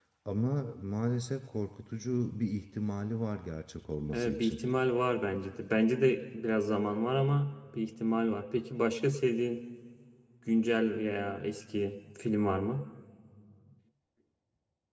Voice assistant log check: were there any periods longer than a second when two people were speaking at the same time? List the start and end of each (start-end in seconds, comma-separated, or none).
none